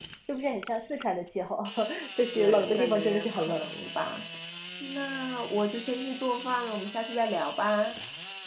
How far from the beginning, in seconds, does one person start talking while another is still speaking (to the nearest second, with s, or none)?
2 s